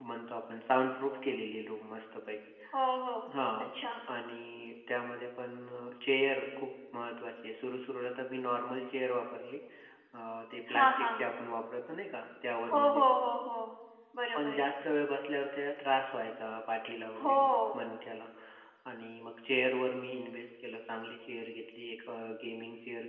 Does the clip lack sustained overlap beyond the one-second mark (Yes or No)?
Yes